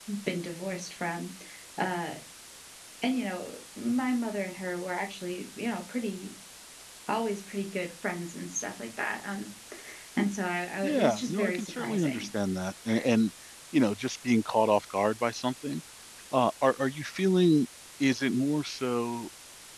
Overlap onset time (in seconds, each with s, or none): 10.8 s